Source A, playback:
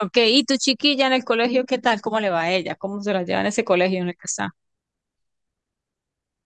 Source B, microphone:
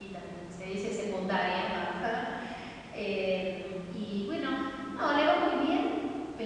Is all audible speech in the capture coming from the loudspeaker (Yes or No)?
No